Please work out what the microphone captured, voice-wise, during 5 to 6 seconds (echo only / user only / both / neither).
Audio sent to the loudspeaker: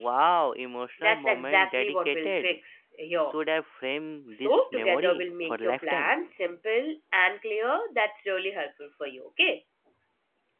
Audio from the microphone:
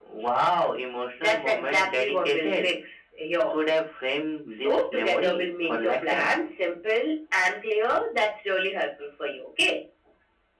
echo only